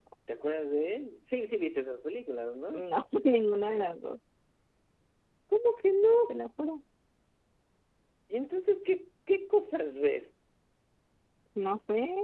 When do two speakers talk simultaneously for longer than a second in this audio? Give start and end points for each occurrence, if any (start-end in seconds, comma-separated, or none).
none